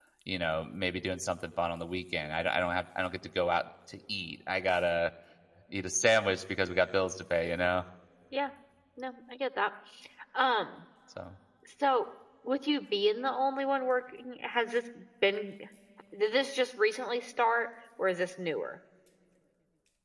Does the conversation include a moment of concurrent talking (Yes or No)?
No